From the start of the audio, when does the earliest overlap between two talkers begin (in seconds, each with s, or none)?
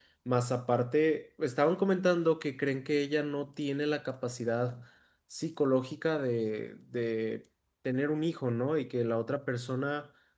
none